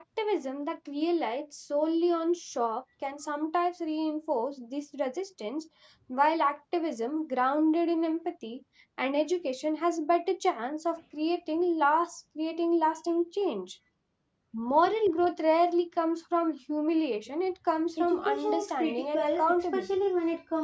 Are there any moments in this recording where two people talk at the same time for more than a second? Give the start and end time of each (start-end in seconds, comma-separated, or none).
18.0-19.9